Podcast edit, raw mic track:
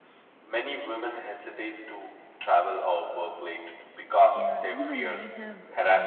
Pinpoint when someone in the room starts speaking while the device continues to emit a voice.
4.4 s

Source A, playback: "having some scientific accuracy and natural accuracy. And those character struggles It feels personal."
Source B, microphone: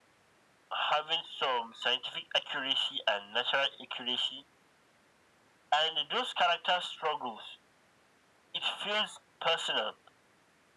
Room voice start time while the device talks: none

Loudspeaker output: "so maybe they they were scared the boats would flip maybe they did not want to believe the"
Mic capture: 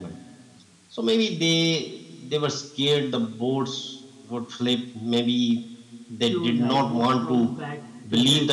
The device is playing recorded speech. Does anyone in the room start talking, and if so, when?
6.2 s

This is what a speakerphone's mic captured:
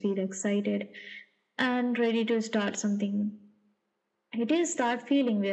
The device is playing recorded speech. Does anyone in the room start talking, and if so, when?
none

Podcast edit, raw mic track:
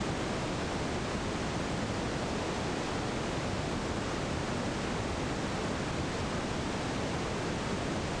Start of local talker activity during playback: none

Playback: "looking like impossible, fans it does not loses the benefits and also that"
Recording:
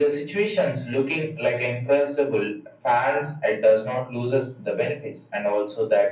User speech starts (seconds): none

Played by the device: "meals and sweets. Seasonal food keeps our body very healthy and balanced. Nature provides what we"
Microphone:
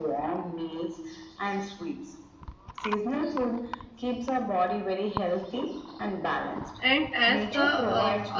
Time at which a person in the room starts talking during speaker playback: 6.8 s

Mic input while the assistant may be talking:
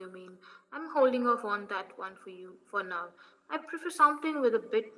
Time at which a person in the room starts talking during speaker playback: none

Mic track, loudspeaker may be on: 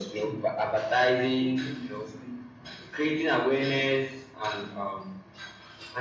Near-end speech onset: none

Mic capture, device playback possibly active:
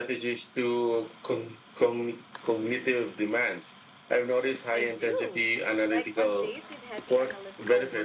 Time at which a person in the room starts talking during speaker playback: 4.7 s

